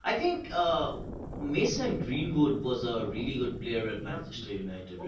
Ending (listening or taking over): taking over